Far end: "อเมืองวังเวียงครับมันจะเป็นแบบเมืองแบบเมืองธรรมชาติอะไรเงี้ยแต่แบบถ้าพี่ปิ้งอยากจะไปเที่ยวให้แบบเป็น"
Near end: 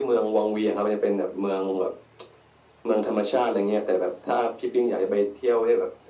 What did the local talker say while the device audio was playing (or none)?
none